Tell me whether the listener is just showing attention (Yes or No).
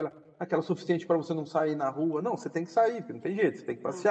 Yes